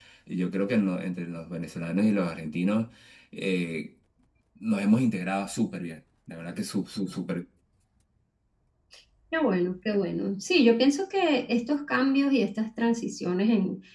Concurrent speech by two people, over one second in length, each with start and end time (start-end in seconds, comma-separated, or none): none